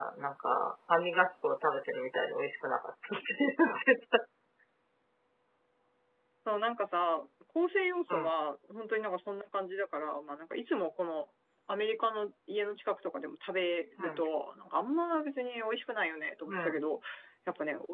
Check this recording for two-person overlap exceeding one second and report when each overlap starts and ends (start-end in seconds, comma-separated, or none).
none